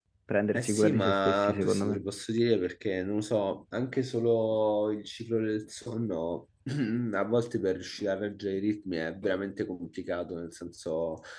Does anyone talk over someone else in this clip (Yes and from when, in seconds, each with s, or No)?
Yes, from 0.6 s